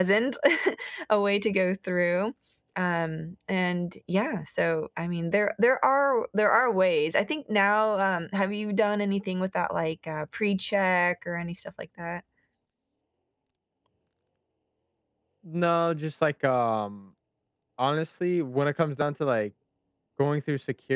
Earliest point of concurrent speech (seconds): none

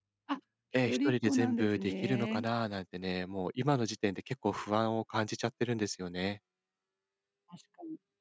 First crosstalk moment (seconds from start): 0.9 s

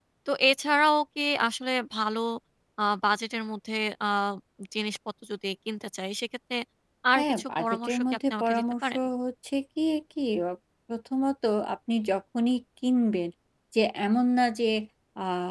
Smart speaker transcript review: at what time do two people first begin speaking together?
7.2 s

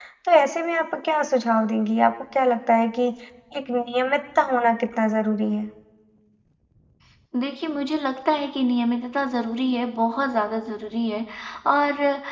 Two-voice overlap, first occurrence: none

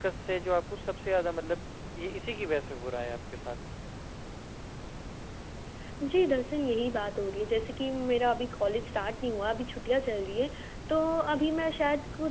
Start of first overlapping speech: none

